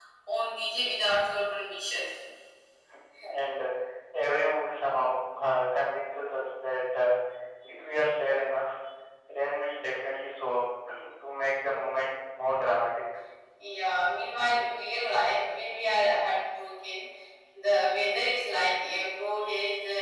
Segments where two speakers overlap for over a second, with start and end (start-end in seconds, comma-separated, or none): none